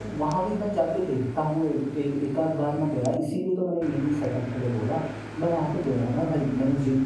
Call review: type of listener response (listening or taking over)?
listening